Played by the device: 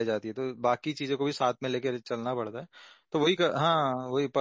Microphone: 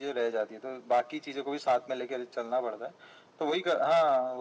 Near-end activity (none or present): none